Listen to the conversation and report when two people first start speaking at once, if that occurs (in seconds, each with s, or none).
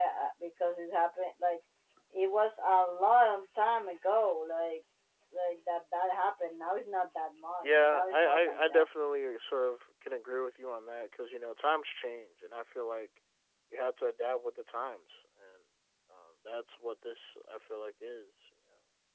7.6 s